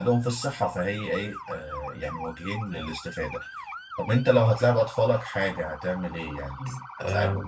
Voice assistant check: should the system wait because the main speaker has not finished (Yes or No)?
No